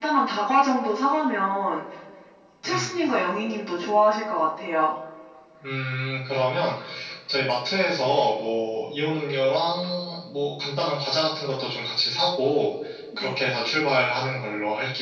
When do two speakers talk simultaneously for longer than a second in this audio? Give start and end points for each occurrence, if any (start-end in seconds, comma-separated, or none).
none